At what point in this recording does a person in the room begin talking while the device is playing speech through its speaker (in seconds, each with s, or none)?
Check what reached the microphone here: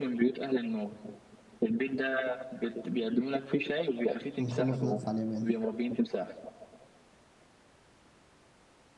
4.4 s